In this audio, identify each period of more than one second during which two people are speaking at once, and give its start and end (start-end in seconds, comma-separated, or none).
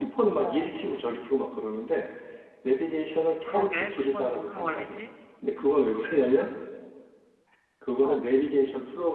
3.4-5.0